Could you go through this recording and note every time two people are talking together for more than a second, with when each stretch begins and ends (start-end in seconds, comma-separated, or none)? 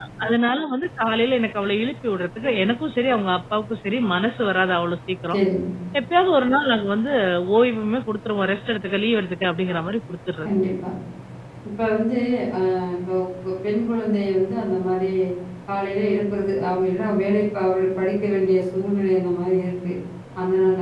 none